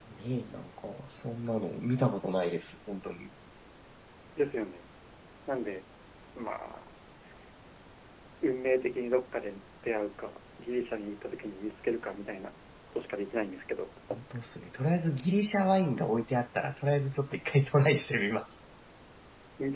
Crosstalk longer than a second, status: none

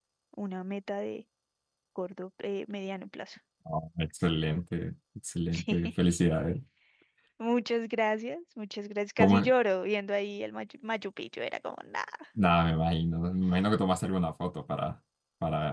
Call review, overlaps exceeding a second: none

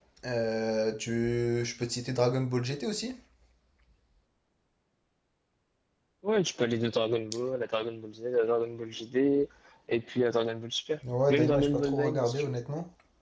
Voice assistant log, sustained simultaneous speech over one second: present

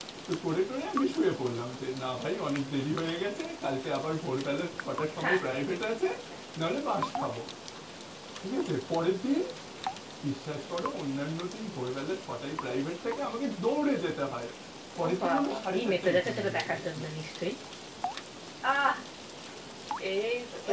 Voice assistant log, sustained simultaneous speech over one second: present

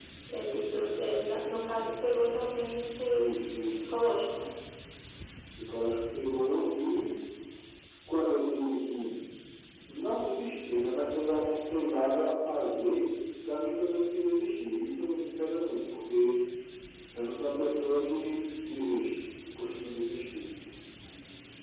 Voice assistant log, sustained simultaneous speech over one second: none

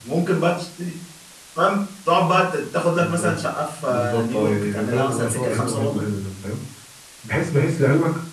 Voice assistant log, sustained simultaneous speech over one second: present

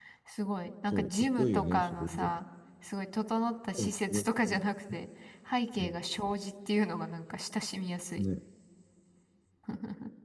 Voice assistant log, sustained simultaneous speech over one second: present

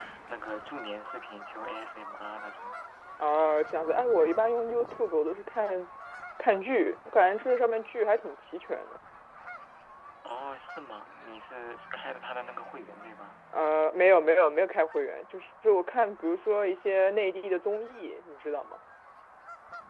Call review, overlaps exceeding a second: none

